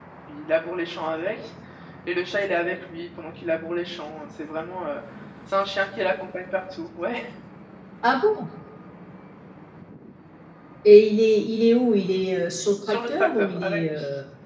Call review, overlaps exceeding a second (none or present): present